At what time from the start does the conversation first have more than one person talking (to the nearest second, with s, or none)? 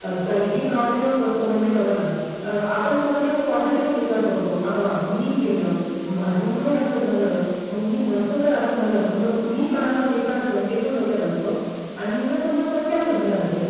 none